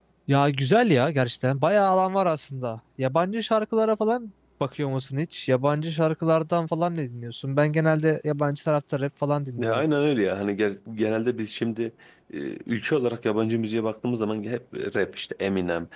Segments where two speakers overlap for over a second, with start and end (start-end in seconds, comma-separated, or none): none